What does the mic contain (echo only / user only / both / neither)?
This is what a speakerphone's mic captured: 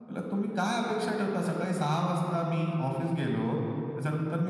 echo only